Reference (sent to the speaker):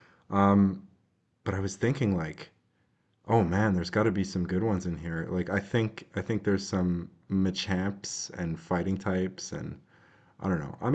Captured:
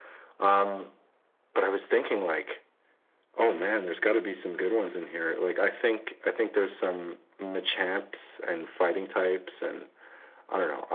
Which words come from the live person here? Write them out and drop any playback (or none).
none